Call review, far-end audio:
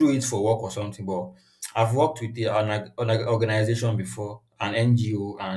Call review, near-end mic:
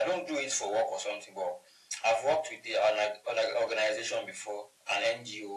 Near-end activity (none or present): none